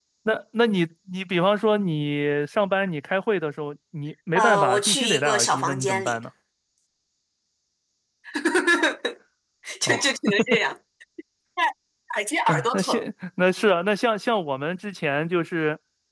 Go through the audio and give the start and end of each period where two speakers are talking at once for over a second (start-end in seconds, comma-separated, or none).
4.3-6.2